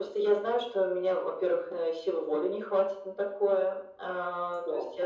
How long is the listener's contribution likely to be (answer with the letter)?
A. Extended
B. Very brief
B